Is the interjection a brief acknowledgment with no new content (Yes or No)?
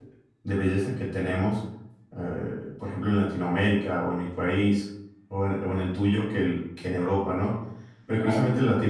Yes